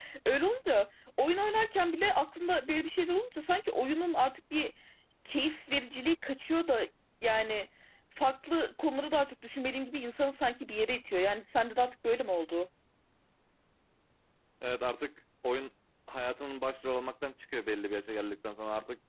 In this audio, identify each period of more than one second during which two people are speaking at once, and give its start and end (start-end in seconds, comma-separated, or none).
none